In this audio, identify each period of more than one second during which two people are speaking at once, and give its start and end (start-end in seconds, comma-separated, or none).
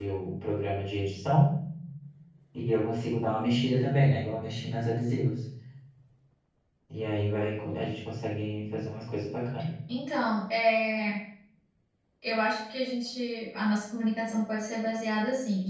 none